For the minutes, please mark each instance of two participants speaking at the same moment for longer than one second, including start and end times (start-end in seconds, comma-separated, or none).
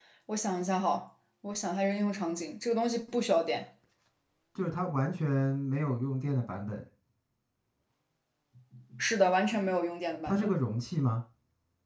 none